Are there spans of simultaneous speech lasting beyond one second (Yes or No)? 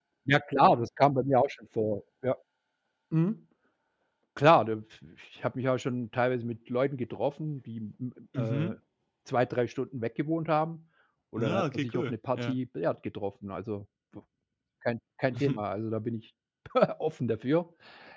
Yes